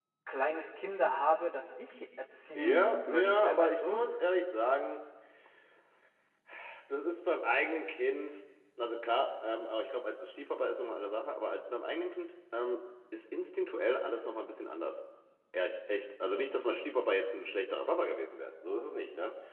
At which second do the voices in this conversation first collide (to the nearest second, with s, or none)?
3 s